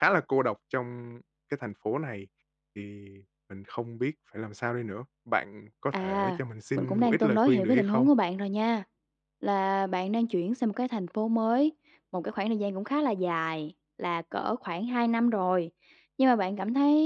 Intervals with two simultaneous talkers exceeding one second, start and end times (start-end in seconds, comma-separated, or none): 6.8-8.1